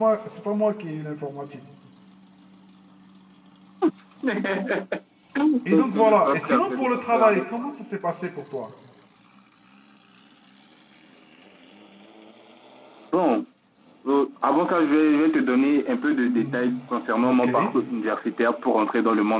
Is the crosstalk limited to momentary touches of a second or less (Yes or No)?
No